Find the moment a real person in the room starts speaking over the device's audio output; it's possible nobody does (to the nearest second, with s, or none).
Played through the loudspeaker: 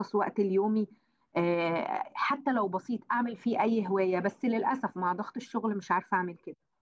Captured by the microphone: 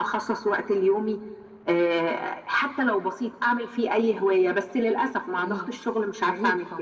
5 s